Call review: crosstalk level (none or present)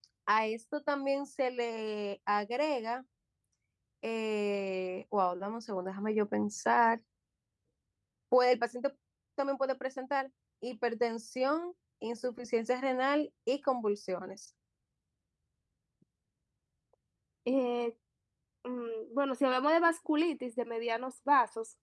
none